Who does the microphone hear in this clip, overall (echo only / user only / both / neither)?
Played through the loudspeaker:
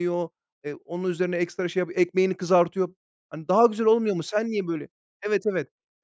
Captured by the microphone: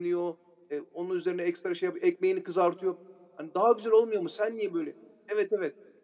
echo only